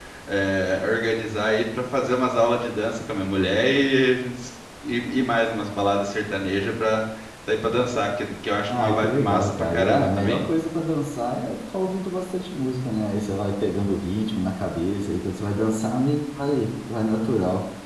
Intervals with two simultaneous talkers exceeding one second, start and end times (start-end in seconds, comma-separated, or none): 8.7-10.4